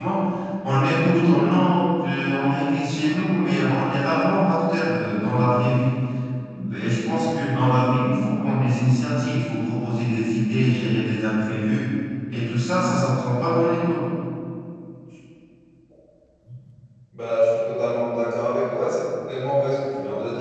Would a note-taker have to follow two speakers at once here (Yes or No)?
No